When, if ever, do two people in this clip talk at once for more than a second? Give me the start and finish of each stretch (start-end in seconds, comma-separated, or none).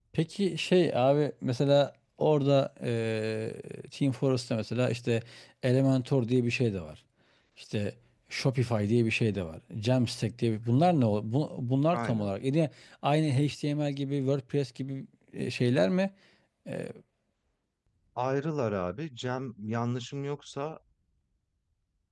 none